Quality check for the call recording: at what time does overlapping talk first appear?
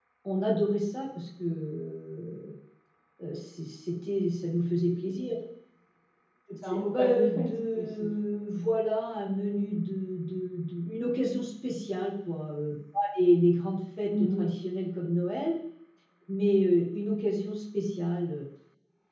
6.6 s

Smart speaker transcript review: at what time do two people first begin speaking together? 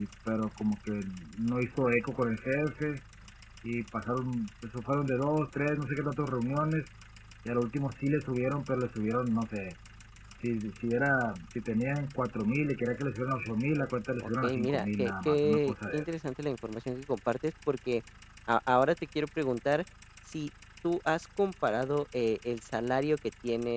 14.2 s

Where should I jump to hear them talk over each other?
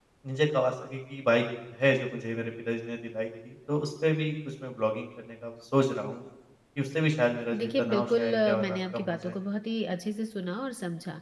7.5 s

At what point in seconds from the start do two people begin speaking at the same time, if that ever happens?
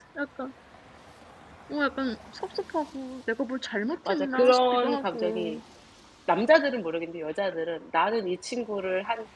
4.1 s

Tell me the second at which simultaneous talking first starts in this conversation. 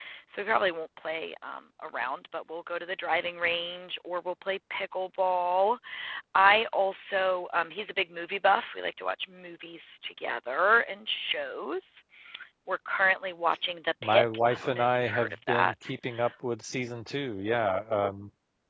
14.0 s

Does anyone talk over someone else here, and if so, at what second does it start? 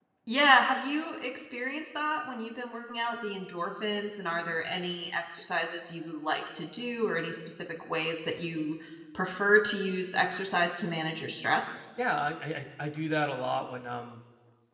none

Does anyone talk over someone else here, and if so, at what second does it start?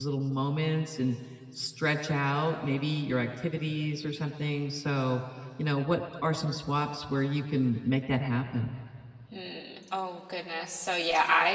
none

